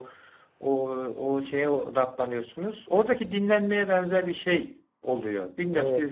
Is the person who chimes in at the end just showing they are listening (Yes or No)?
No